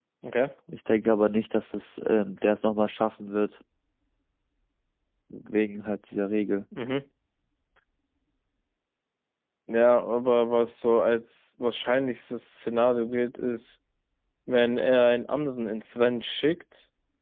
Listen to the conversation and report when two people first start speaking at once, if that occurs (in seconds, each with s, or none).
none